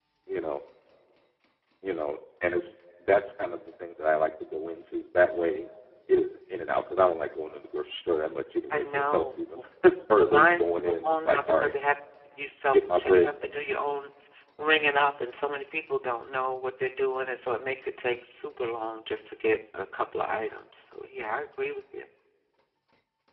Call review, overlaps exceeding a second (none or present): present